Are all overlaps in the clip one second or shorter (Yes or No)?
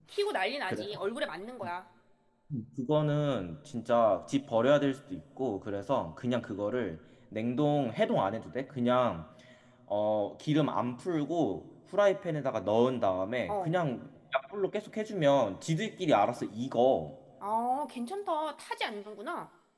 Yes